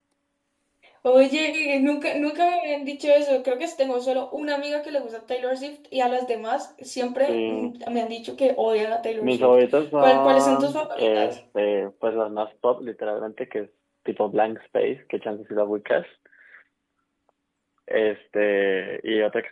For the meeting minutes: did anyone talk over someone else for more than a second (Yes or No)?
Yes